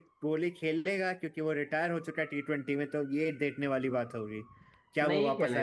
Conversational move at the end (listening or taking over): taking over